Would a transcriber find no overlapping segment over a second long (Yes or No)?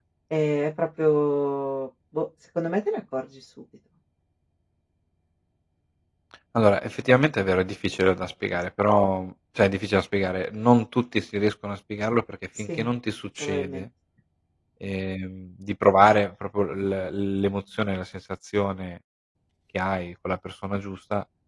Yes